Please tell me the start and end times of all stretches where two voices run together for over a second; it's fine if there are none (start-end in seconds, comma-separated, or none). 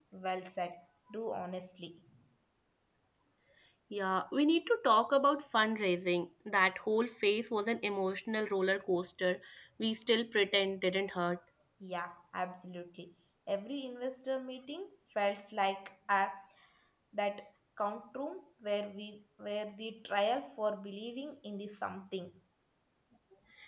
none